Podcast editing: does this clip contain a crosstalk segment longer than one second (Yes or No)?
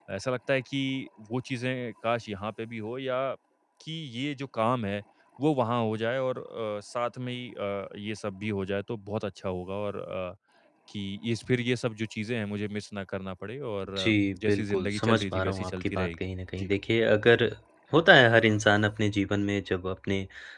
Yes